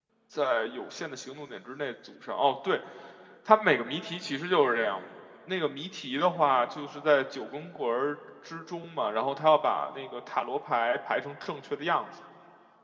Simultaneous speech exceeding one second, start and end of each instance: none

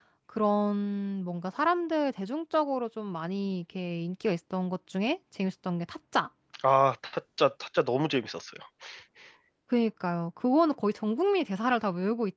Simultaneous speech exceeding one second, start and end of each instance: none

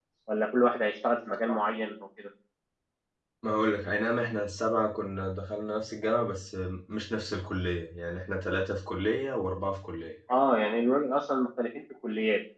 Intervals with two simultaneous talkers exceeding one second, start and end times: none

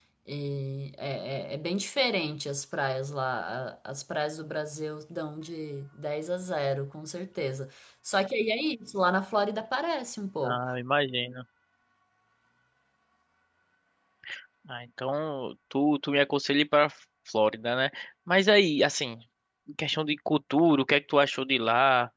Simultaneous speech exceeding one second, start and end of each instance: none

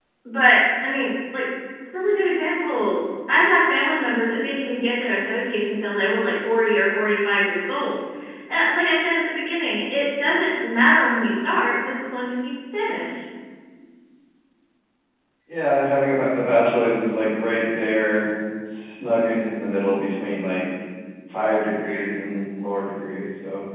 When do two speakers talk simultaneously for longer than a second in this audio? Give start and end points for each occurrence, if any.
none

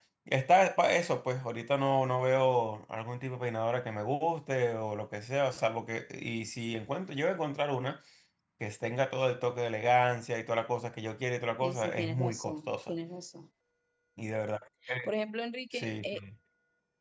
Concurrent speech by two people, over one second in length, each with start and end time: 11.6-12.9

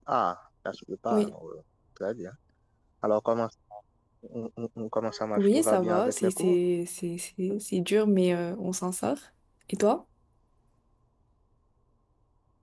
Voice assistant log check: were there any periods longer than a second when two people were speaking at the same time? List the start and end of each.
5.4-6.6

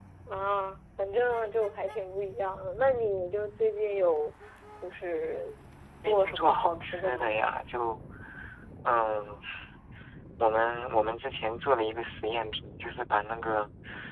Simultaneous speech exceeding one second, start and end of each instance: 6.0-7.3

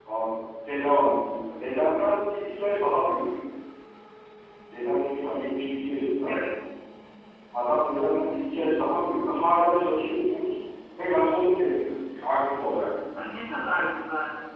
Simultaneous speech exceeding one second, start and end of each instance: none

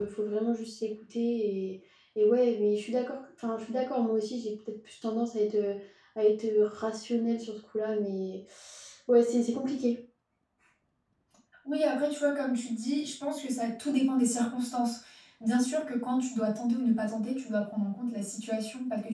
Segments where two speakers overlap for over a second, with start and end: none

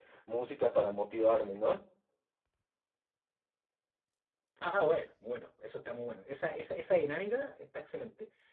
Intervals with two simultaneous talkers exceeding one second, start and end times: none

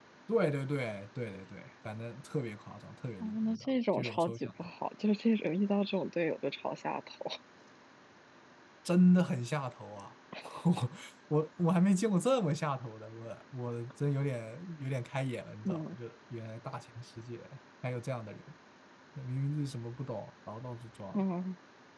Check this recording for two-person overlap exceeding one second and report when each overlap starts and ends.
3.2-4.5

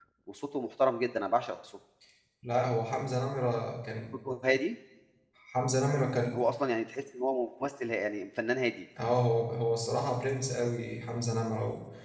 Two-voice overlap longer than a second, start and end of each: none

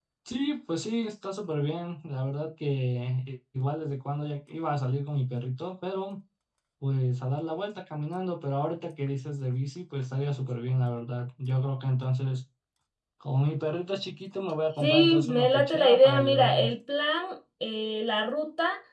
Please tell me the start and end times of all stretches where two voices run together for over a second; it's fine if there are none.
14.8-16.7

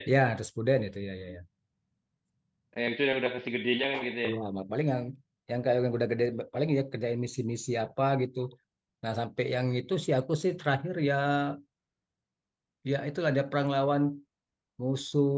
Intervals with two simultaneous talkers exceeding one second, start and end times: none

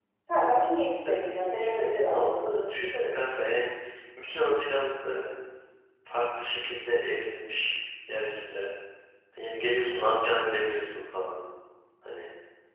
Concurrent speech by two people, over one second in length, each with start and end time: 1.1-2.4

